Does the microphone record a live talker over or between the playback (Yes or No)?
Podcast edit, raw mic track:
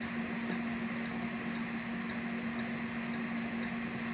No